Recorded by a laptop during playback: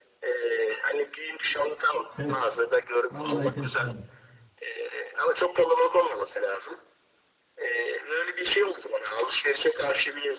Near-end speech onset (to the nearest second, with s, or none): 2 s